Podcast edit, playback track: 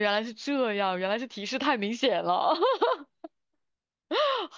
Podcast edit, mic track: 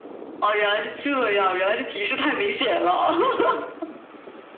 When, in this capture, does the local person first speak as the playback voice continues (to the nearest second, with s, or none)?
none